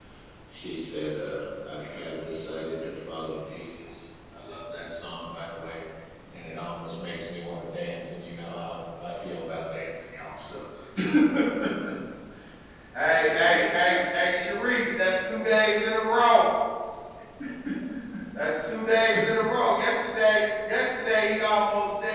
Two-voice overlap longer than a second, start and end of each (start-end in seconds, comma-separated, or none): 13.0-14.4